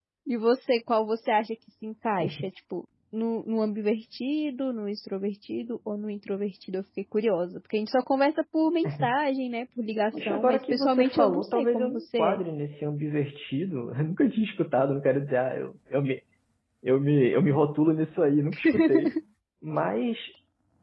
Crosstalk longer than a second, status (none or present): present